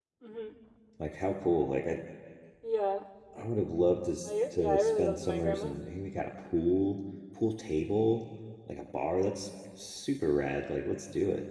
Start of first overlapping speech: 4.3 s

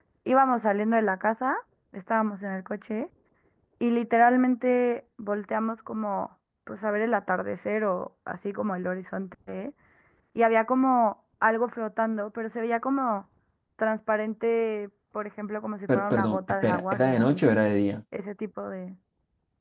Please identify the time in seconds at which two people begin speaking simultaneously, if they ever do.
15.9 s

